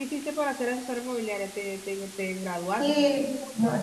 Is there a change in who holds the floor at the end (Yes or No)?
Yes